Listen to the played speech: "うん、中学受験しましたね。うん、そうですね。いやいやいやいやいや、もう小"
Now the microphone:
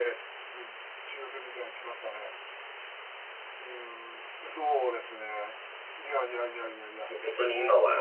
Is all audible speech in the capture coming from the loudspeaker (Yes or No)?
No